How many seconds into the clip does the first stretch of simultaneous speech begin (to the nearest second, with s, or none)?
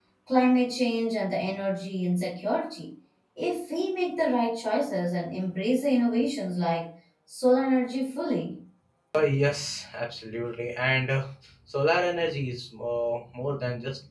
none